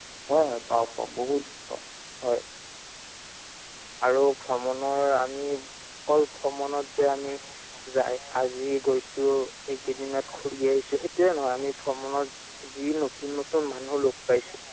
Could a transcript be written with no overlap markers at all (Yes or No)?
Yes